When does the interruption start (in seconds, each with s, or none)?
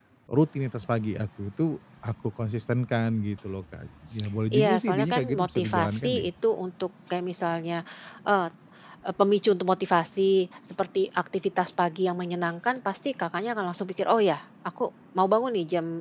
4.5 s